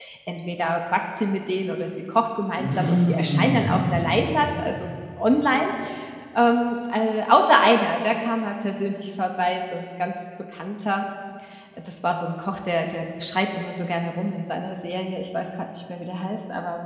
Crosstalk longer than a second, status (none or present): present